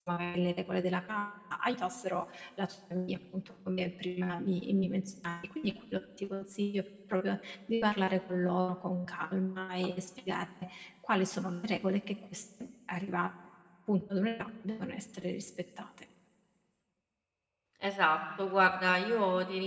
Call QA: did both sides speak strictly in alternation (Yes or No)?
Yes